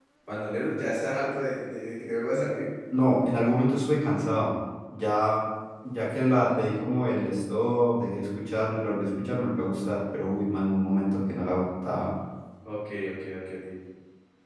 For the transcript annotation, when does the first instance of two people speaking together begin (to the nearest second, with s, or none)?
none